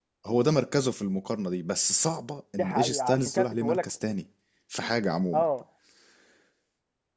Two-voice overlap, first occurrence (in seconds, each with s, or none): 2.6 s